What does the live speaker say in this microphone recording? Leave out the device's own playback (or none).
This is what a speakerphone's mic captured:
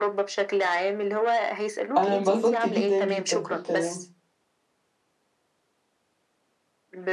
أنا انبسطت جدًا، جدًا في الكلام.